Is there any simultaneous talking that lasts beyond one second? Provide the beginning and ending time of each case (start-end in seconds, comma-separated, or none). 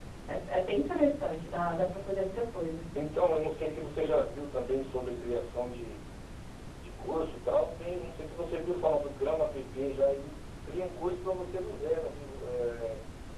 none